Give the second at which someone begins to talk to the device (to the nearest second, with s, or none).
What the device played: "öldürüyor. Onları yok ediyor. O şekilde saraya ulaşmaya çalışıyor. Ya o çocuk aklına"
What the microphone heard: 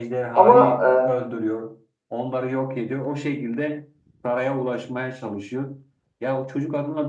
0 s